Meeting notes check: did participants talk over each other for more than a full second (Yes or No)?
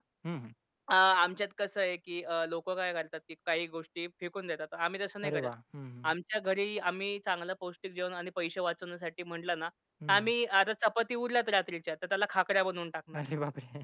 No